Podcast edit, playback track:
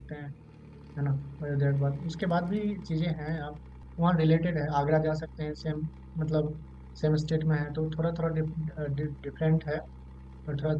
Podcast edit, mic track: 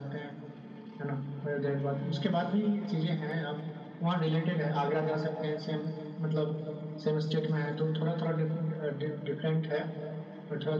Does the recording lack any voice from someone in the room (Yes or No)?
Yes